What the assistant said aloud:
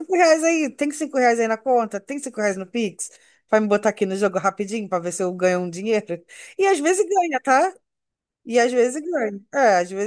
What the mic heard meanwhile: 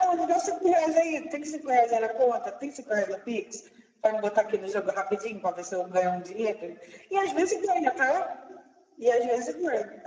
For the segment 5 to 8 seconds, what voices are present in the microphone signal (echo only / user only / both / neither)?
echo only